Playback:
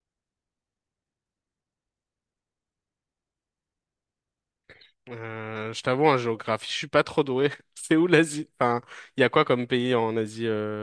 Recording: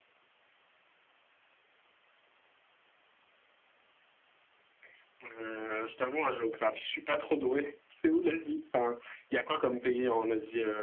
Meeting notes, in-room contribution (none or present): none